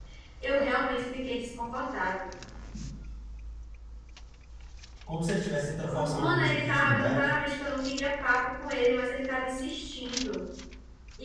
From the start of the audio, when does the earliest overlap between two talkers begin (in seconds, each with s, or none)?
5.9 s